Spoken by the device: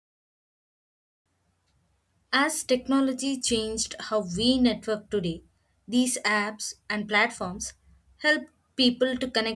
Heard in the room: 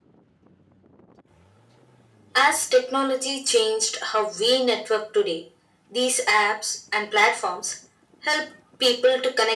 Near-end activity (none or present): none